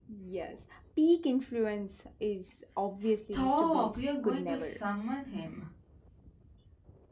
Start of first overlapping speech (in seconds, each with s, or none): 3.0 s